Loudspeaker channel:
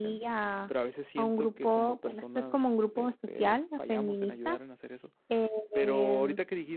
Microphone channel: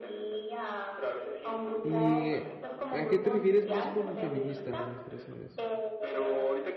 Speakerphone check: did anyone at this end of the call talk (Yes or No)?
Yes